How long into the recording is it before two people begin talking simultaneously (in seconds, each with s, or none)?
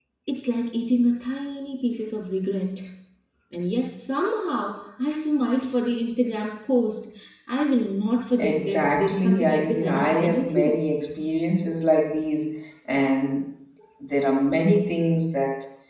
8.4 s